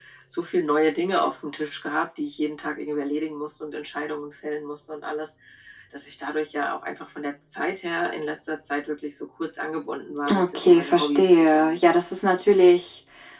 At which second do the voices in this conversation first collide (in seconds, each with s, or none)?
10.2 s